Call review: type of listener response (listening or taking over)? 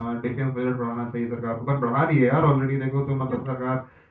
listening